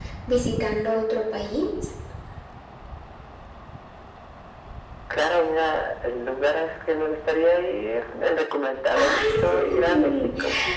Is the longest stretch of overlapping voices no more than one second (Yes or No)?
No